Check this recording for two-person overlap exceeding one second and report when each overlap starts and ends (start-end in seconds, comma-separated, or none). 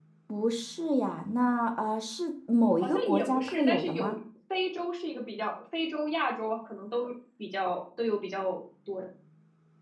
2.8-4.2